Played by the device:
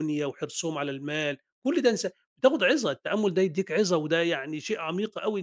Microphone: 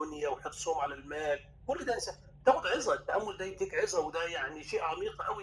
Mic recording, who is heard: echo only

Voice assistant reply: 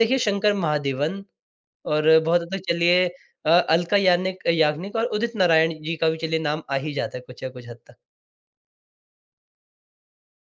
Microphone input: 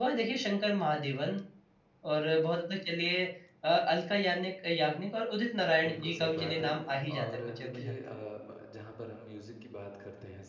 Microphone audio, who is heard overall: both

